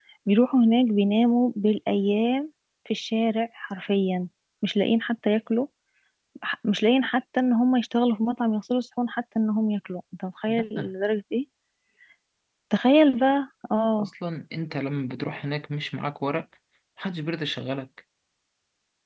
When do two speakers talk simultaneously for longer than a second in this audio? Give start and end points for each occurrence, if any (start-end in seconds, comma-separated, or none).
none